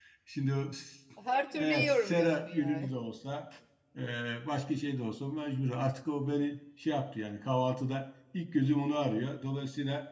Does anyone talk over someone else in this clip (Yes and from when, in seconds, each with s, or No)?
Yes, from 1.5 s